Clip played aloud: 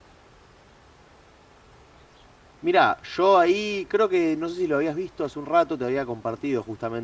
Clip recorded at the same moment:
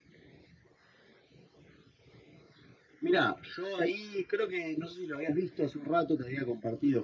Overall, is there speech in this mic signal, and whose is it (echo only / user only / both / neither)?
echo only